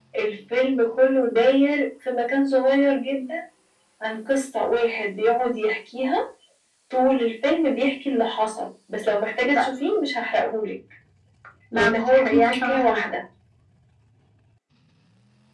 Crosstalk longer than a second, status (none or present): present